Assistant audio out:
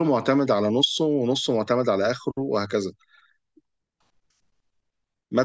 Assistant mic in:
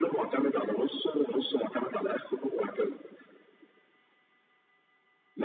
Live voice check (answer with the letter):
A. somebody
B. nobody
B